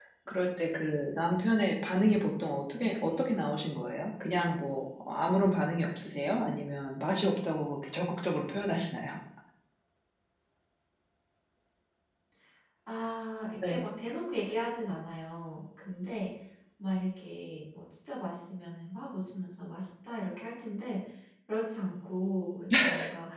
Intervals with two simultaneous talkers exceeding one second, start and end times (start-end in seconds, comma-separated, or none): none